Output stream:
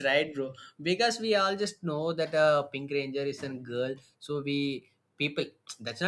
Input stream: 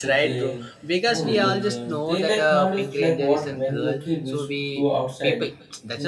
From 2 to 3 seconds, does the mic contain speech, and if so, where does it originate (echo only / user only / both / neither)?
both